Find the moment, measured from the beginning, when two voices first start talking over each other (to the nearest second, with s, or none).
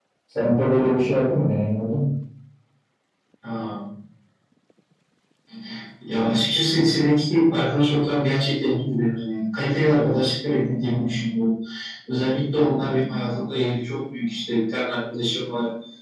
none